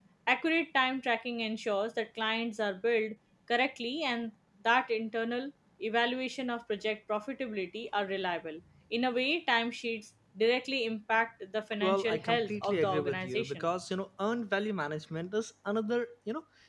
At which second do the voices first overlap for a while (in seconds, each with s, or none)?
11.8 s